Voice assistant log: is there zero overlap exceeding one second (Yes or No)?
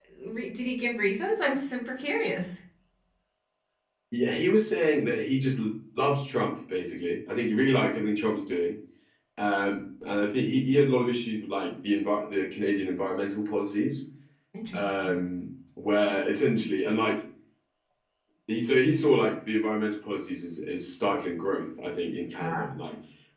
Yes